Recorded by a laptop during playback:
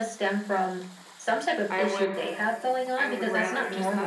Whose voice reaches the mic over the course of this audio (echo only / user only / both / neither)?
both